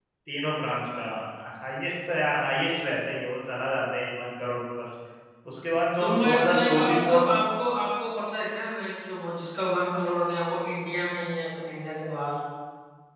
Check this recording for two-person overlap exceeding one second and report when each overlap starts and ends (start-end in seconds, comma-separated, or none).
6.0-7.3